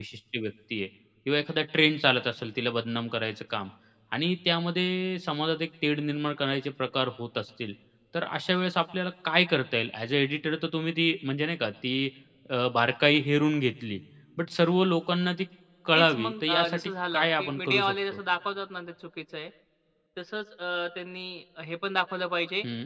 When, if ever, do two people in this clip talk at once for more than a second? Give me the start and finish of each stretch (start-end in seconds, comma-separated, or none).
15.9-17.9